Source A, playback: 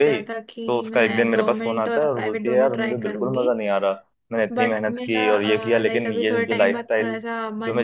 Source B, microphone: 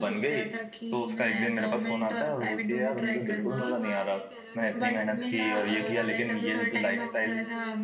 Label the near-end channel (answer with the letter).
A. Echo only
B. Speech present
B